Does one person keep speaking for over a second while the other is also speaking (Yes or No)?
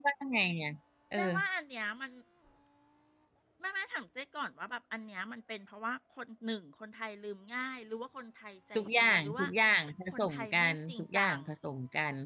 Yes